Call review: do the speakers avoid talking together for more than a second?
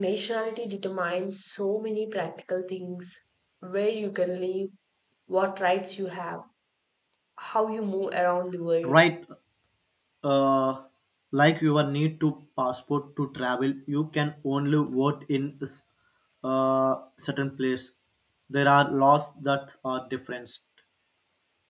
Yes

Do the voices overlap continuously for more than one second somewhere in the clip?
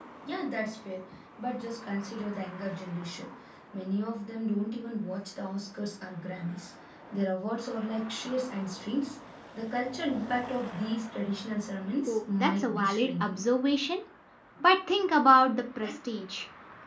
Yes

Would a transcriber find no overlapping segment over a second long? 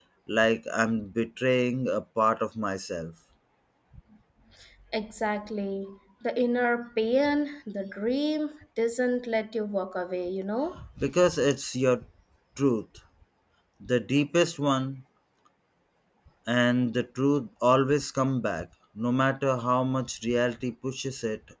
Yes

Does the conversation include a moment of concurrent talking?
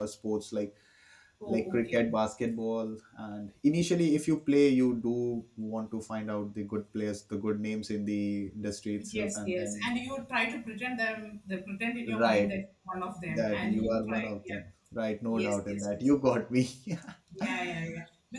Yes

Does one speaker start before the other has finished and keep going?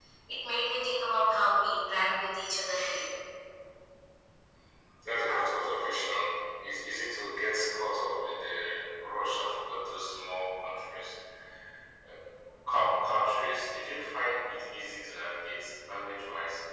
No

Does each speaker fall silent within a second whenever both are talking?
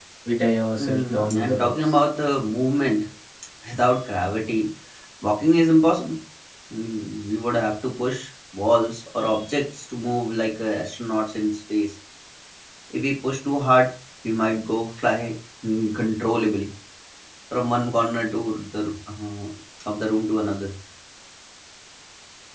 No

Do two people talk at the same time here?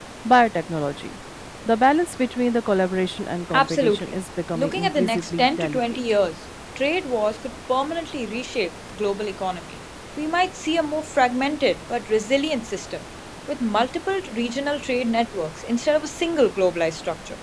Yes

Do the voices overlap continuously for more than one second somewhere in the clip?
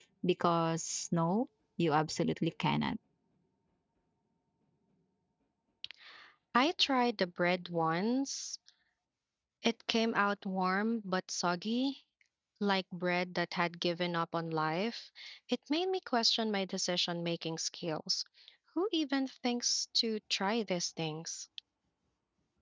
No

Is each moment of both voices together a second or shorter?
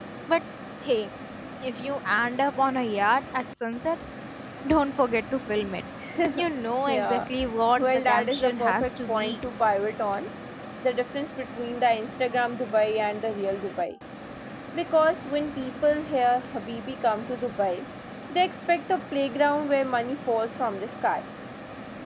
No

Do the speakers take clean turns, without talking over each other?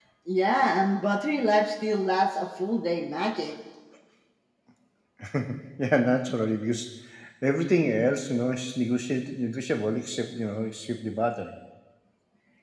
Yes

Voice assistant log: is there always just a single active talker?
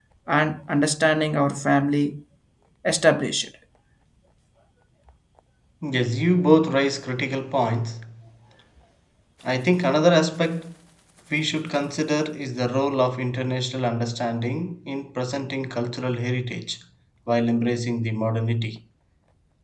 Yes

